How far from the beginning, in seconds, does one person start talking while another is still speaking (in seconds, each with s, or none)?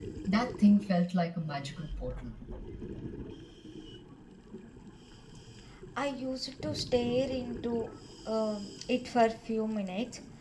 none